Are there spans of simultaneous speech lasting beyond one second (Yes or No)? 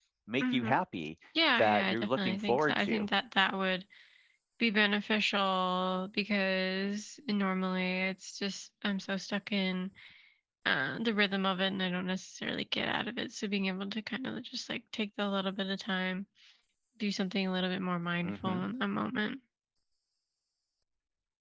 Yes